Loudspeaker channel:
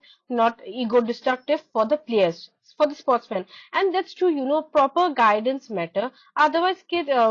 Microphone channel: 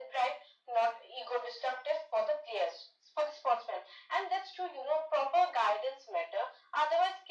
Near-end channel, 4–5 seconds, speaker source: echo only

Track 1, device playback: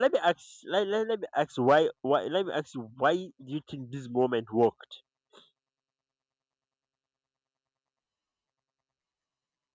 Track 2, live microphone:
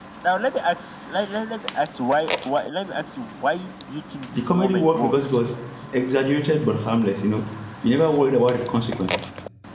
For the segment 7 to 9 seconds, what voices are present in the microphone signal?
user only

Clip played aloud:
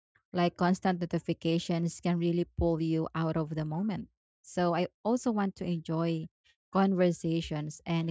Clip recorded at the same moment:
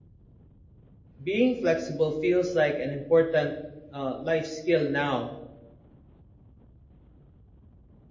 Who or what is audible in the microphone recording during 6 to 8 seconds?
neither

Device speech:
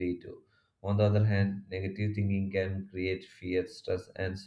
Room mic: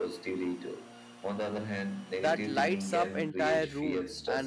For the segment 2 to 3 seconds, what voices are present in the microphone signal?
both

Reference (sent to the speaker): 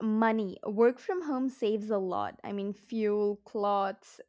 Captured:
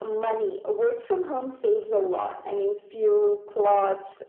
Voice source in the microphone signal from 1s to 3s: echo only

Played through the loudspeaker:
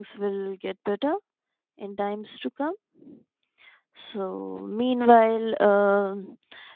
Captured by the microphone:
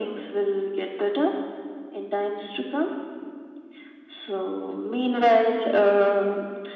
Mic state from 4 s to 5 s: echo only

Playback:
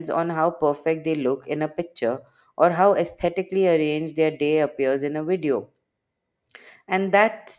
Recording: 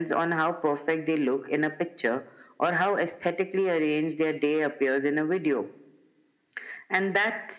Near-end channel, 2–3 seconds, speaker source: echo only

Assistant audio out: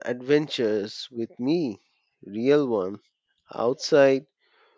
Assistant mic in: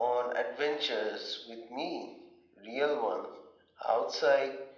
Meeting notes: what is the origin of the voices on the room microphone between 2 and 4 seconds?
echo only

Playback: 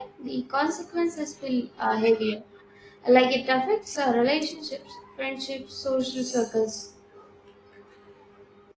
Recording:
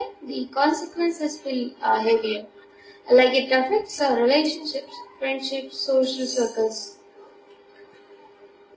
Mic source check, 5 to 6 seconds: echo only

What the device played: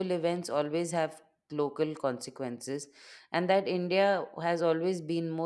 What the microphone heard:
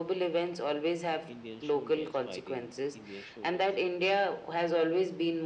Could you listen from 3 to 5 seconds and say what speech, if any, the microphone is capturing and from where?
both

